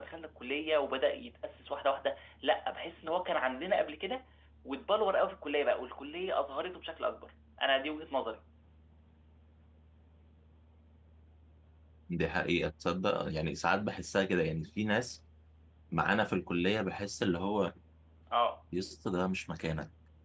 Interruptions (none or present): none